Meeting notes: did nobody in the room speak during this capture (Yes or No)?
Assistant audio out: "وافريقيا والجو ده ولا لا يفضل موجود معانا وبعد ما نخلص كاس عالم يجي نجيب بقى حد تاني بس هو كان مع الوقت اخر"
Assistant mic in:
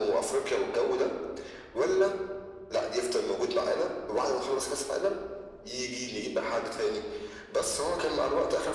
Yes